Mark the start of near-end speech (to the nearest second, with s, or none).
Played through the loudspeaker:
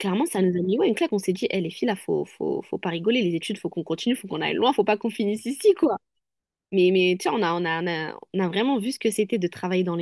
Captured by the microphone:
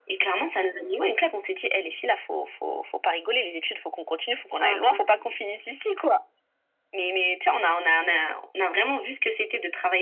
5 s